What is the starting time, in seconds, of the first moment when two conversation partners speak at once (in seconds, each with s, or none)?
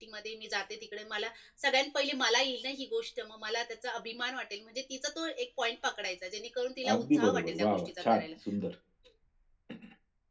6.8 s